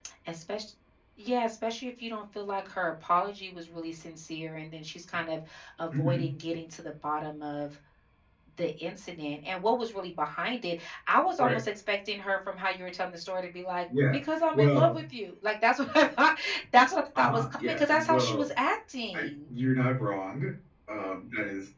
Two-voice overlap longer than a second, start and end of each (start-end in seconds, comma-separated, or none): 17.2-18.5